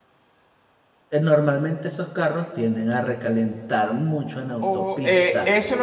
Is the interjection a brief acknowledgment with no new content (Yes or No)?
No